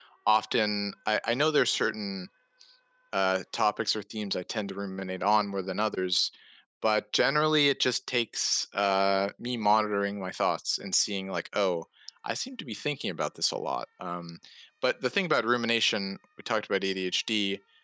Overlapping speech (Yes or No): No